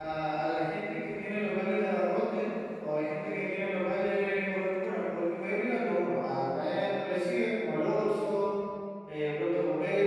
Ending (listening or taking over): listening